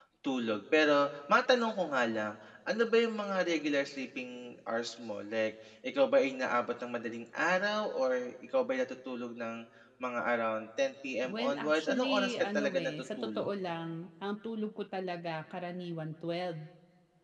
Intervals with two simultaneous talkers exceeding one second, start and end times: 11.2-13.5

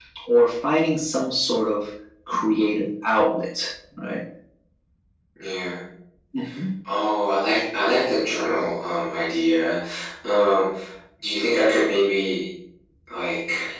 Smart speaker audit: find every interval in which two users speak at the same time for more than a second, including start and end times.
none

